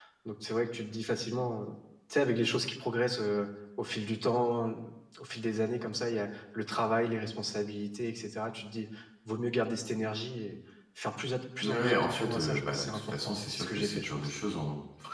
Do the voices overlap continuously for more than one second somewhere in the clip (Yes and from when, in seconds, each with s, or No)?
Yes, from 11.6 s